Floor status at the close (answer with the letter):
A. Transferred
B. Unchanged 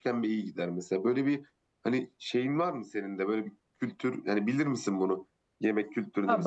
A